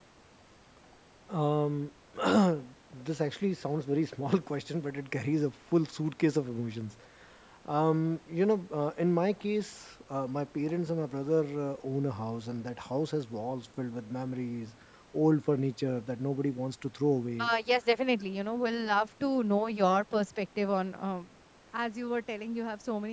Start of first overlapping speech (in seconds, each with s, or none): none